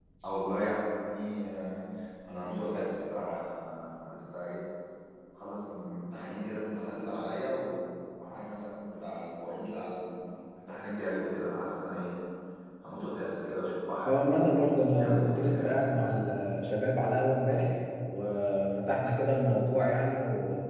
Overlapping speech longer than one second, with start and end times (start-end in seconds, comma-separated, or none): 14.1-16.2